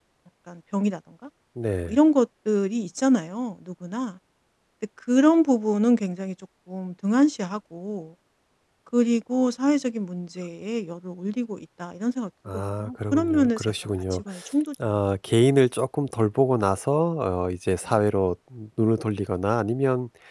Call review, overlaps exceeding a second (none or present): present